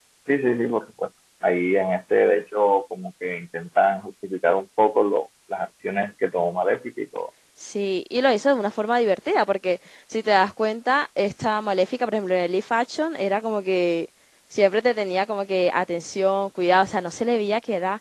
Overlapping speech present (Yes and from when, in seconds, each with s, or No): No